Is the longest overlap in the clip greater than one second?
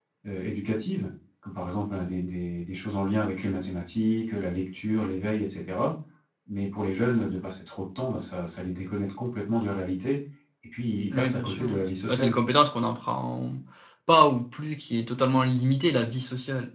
Yes, from 11.1 s

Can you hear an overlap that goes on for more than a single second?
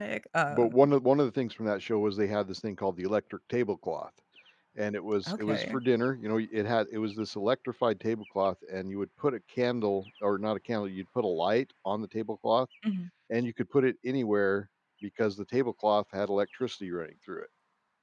No

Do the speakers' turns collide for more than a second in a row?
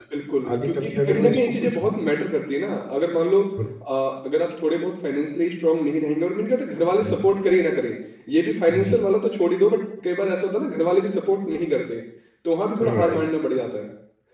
Yes, from 0.5 s

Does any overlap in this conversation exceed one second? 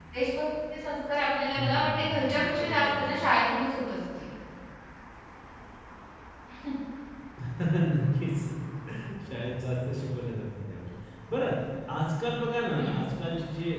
Yes, from 1.6 s

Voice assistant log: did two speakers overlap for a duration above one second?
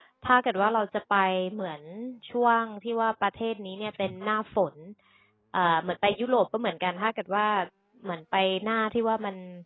No

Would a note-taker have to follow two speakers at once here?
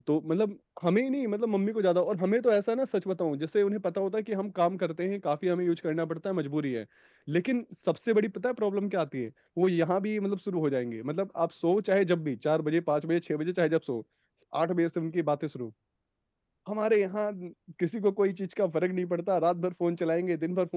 No

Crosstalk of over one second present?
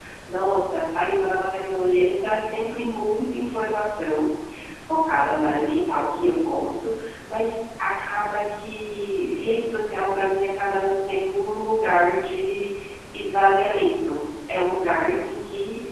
No

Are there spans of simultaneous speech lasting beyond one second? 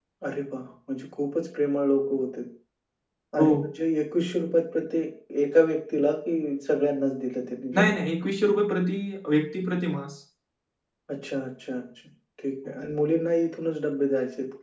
No

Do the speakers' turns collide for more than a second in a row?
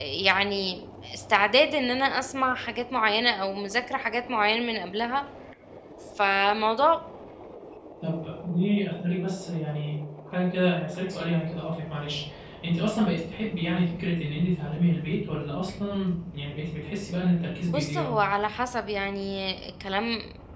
No

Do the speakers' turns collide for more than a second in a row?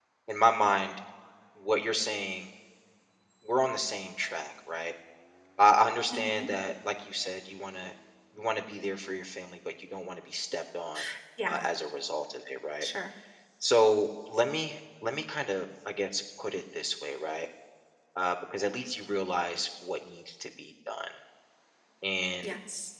No

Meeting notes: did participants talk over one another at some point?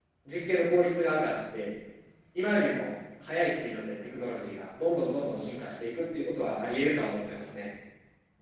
No

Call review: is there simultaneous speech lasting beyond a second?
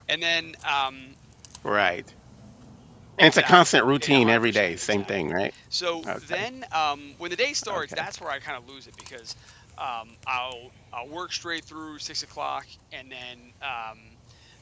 Yes, from 3.2 s

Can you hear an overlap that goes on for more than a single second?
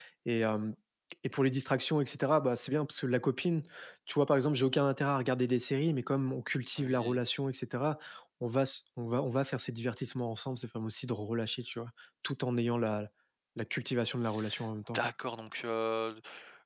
No

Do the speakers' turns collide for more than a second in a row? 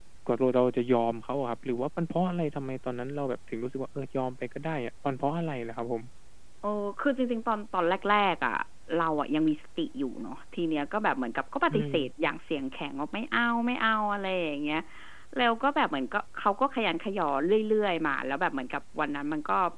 No

